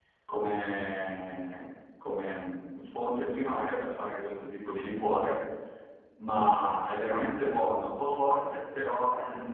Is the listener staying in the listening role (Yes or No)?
Yes